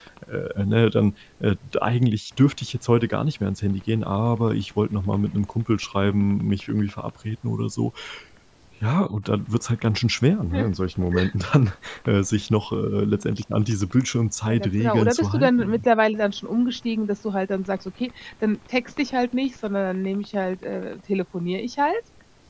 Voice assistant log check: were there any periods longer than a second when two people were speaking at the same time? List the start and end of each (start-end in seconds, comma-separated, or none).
14.5-15.8